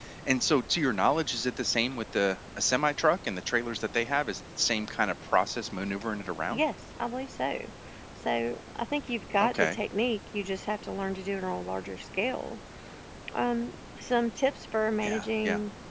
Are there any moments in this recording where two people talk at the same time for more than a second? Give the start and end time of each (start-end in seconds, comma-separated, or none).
none